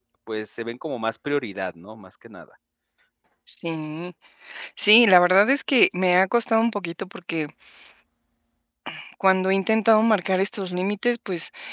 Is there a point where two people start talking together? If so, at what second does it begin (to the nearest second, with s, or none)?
none